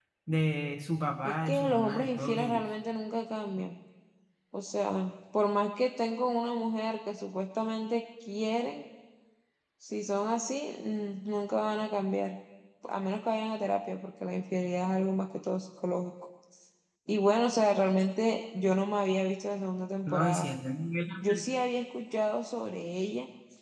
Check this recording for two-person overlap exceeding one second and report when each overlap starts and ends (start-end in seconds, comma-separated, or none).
1.2-2.6